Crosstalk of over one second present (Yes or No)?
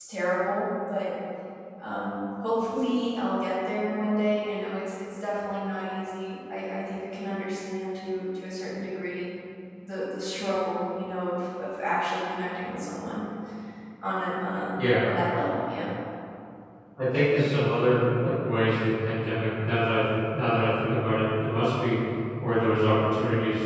No